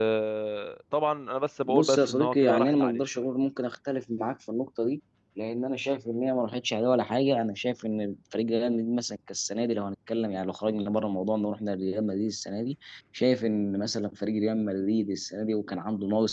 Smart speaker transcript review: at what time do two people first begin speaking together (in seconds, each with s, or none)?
1.6 s